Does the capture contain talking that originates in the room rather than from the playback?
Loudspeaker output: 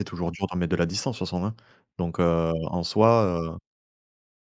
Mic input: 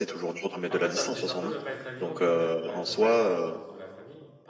Yes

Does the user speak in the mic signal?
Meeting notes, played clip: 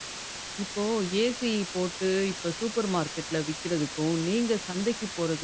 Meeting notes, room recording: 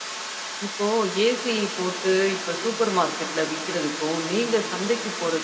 No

